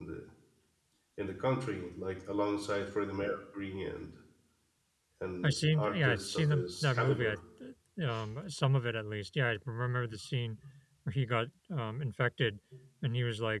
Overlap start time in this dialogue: 5.4 s

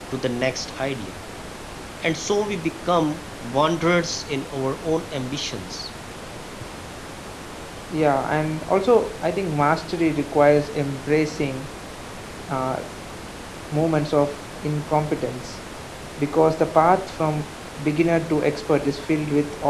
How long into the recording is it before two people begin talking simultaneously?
none

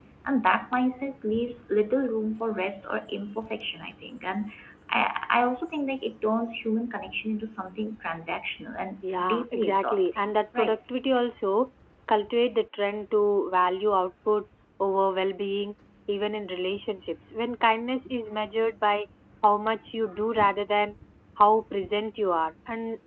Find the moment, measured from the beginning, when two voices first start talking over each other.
9.0 s

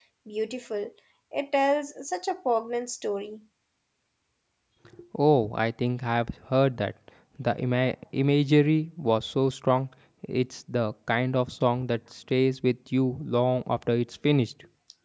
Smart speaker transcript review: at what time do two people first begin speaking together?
none

